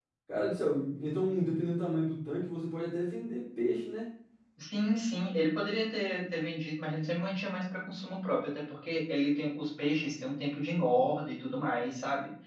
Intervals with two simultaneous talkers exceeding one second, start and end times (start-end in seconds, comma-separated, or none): none